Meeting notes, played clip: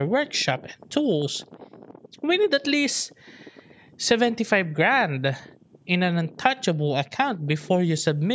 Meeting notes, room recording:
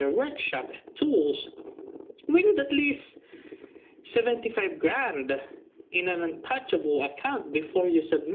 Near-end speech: none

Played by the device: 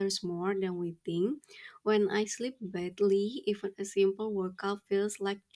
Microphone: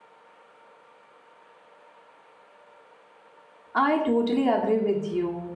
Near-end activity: present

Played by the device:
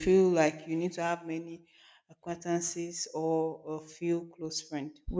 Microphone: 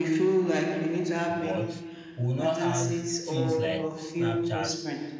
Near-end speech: present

